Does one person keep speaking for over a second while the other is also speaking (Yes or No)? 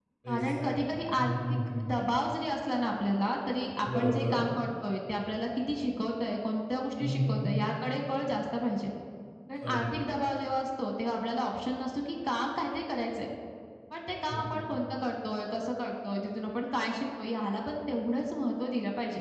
Yes